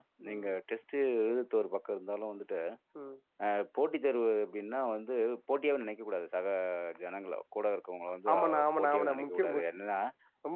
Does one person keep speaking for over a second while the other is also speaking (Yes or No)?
Yes